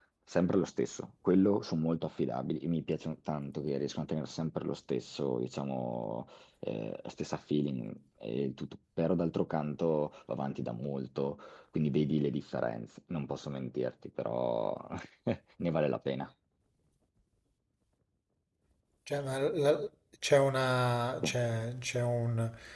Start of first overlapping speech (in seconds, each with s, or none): none